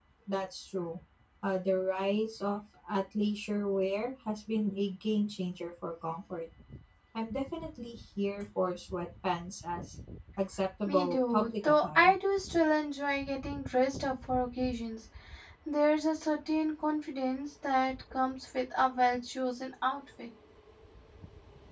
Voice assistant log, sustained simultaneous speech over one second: present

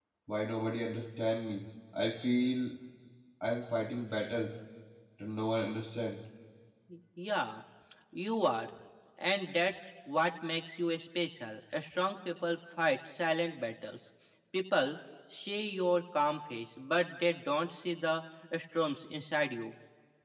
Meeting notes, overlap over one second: none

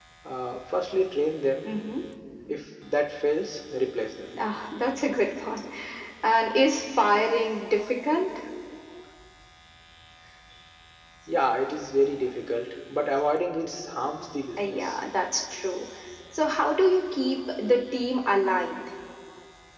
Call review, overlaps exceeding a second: none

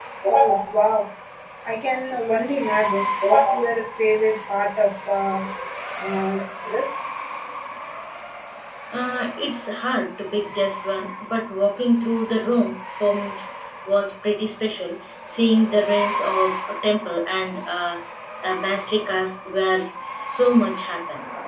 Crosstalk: none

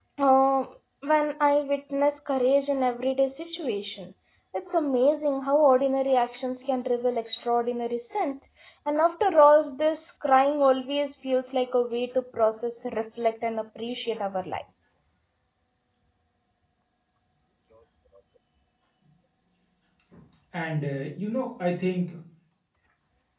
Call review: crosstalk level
none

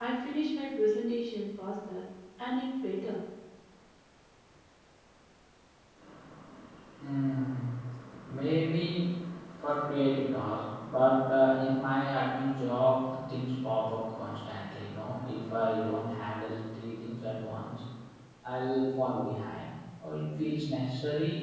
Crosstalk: none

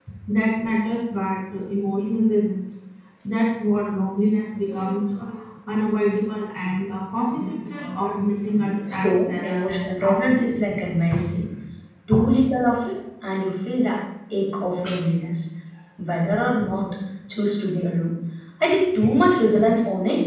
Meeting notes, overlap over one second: present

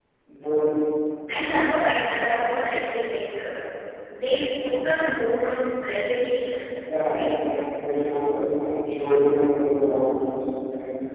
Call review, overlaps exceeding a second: none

